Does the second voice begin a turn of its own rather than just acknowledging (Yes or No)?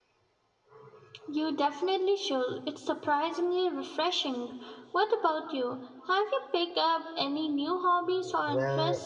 Yes